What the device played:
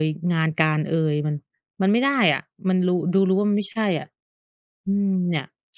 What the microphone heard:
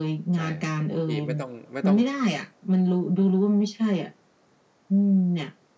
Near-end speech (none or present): present